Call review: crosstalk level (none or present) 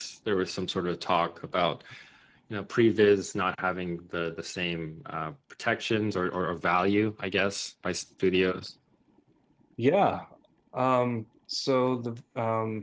none